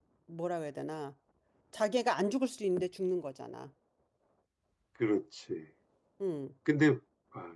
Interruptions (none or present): none